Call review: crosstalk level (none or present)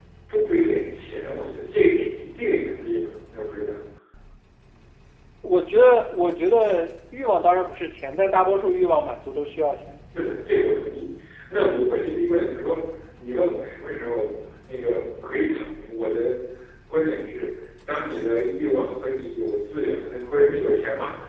none